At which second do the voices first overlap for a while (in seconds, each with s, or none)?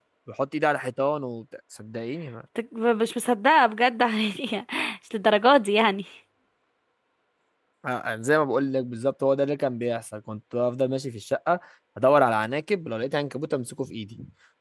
none